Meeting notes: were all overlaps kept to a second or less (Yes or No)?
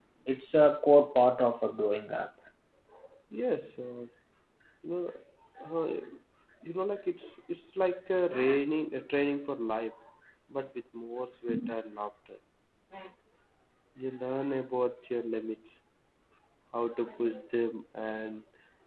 Yes